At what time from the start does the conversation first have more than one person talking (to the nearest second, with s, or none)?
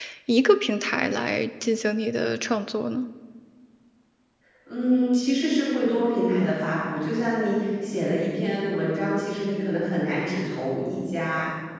none